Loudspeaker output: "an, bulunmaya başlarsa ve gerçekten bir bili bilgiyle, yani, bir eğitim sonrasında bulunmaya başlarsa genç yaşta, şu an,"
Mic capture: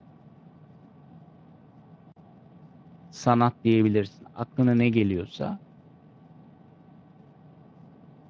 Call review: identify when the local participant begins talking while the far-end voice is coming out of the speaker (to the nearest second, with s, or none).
3 s